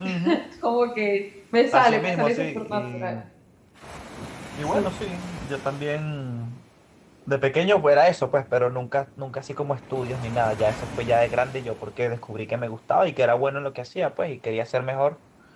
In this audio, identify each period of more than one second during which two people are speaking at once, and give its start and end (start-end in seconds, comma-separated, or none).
1.7-3.1